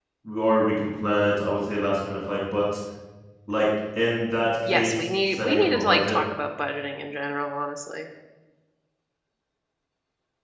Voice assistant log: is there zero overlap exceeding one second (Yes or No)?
No